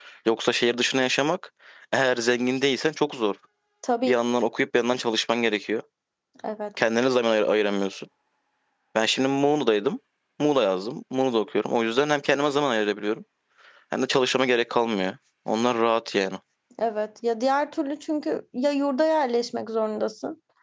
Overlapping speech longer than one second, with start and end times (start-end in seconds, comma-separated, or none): none